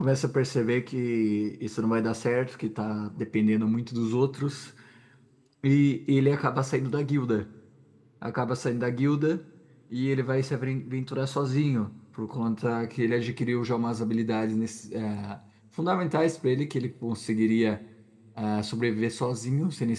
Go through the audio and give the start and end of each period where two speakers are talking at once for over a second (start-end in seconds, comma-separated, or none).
none